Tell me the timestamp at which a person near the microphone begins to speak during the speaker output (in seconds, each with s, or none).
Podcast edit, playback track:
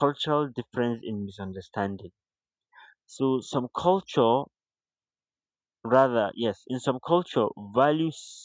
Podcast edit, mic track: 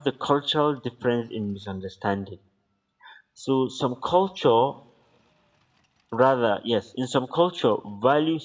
none